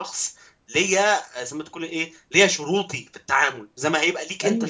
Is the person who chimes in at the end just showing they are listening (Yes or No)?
No